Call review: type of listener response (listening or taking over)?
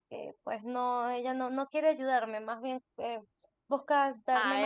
taking over